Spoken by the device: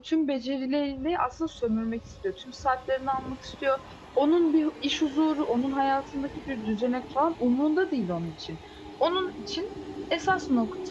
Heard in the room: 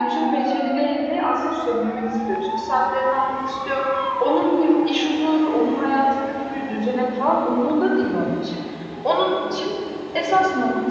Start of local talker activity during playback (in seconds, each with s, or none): none